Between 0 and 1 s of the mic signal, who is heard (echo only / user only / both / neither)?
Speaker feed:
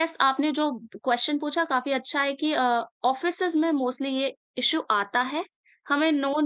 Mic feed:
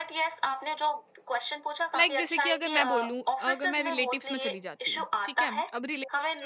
echo only